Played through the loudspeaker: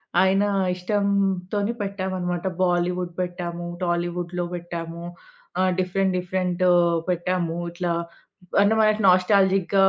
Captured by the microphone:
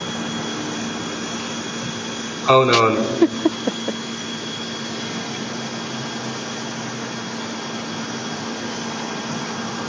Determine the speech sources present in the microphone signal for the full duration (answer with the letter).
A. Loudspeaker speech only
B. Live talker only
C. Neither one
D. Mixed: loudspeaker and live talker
B